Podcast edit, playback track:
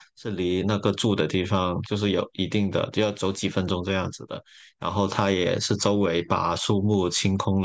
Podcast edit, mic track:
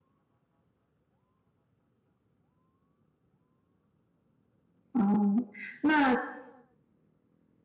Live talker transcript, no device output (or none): 哦，那